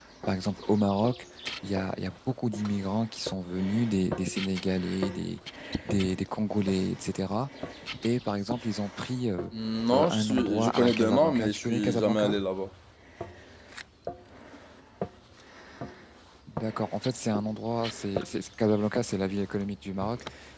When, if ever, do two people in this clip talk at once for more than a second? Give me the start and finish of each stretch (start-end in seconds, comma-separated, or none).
9.9-12.3